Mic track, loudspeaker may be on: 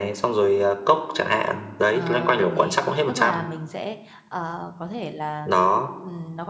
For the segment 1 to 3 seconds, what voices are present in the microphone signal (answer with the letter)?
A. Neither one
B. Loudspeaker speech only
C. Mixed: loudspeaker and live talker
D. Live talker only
C